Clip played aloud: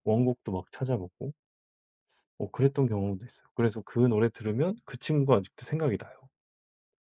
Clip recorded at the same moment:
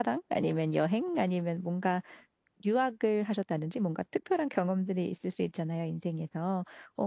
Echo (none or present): none